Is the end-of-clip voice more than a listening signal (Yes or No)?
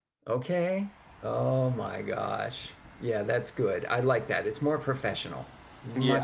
Yes